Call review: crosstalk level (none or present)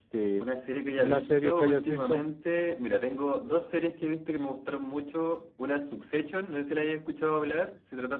present